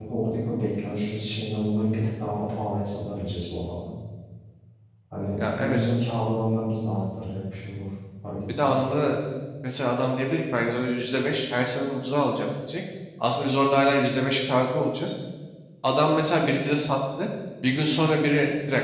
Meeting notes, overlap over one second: none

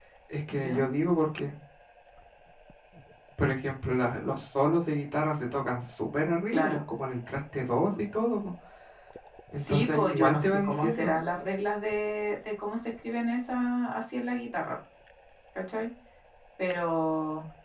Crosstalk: present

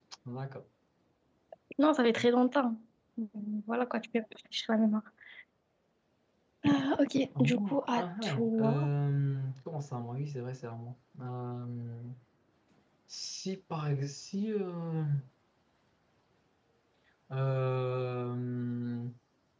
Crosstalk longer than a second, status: present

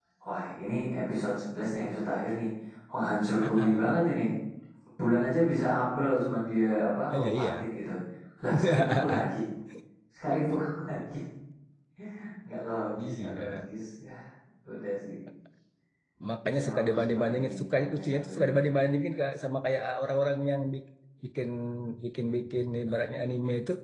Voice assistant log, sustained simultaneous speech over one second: present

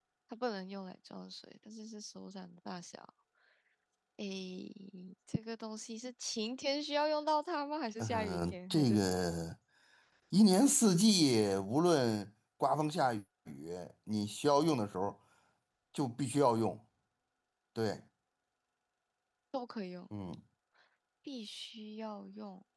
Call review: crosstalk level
present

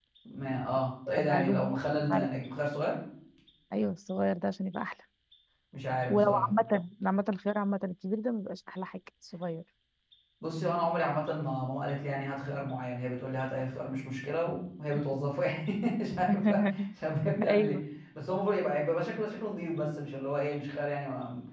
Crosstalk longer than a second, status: present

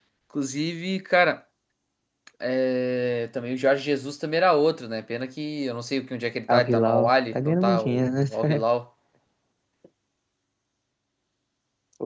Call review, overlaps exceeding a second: present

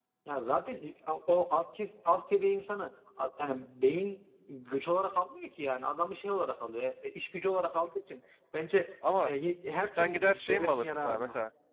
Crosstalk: present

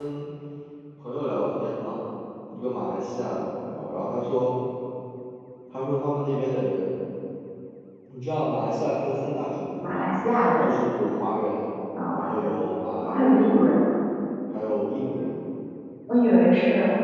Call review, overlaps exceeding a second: none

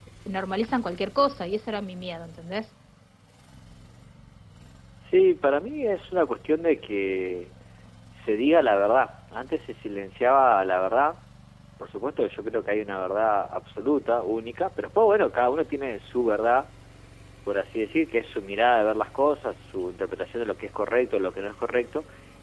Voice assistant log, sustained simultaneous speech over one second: none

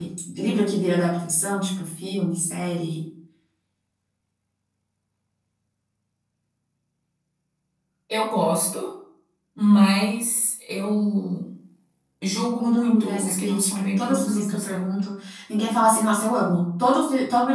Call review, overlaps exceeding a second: present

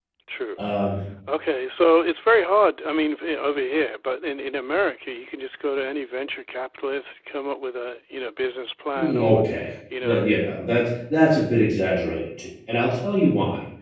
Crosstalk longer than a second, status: none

